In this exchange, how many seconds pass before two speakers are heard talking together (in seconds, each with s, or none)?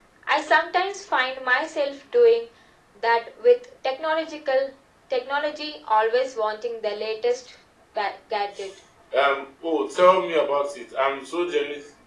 none